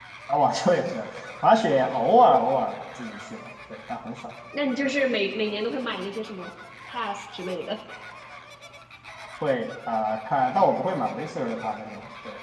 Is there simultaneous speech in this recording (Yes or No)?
No